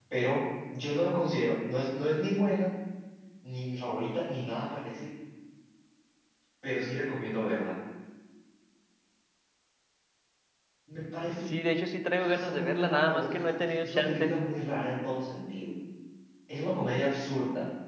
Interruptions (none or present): present